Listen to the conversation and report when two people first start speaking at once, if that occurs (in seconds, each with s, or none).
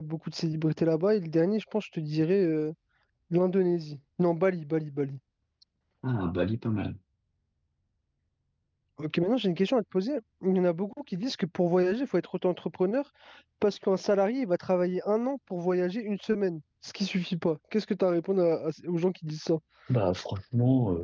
none